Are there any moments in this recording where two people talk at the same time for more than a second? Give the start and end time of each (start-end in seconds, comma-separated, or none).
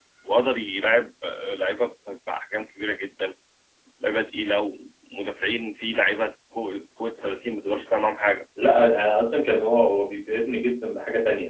none